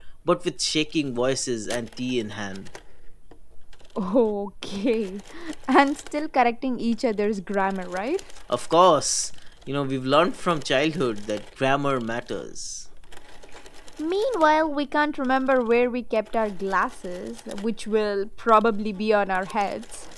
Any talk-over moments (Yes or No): No